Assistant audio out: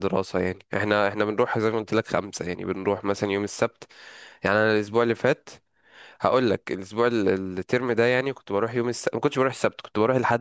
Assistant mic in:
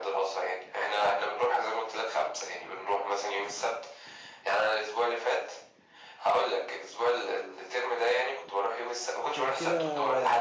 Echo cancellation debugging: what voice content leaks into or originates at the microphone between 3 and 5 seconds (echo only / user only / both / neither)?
echo only